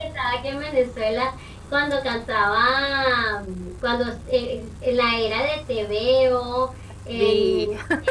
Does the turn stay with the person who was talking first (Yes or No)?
Yes